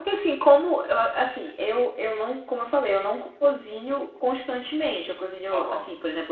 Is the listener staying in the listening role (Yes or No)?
Yes